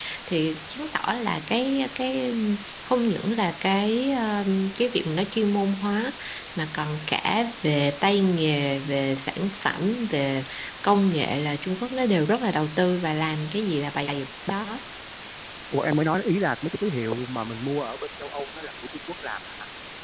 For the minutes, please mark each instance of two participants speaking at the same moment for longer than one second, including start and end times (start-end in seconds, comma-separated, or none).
none